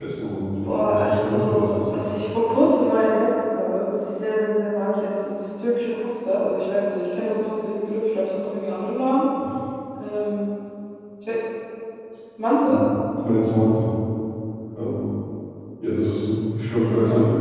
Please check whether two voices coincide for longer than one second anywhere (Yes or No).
Yes